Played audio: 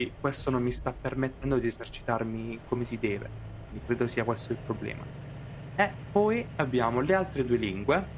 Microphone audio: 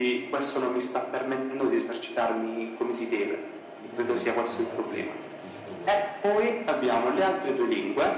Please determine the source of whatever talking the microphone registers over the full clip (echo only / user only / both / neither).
both